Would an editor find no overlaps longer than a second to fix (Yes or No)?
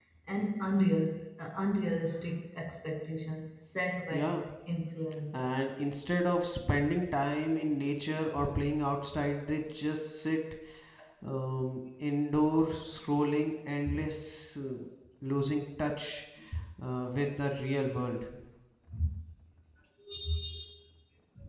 Yes